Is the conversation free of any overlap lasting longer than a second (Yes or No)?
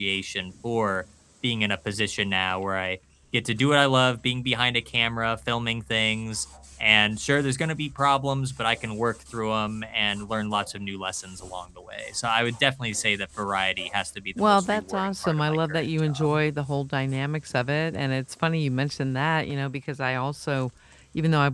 No